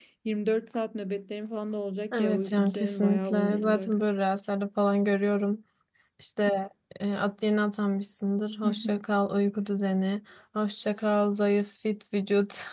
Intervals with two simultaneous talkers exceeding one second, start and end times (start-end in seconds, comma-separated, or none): 2.1-4.0